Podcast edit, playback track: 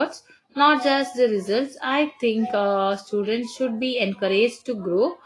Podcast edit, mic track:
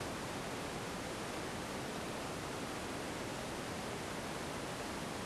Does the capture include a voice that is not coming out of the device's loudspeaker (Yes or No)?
No